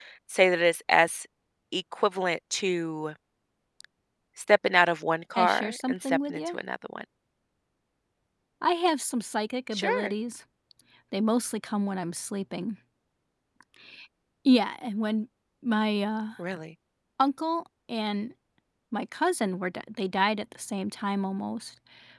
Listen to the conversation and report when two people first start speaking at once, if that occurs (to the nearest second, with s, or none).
5 s